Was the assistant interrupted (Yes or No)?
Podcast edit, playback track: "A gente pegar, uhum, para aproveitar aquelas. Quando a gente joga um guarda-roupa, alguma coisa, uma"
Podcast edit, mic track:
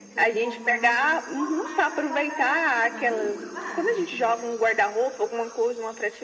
Yes